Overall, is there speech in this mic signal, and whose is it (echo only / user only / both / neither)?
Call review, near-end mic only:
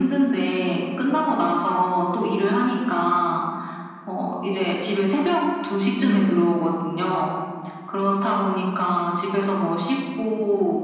both